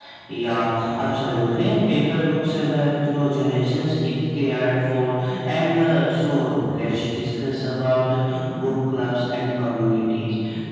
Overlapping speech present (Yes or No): No